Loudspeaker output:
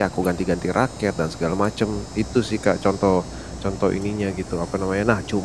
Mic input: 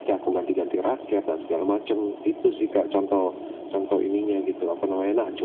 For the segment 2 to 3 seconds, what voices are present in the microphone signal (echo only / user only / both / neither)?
echo only